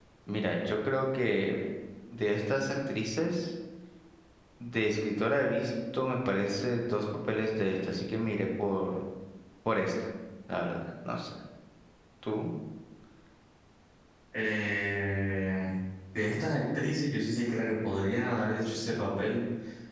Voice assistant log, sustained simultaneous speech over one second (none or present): none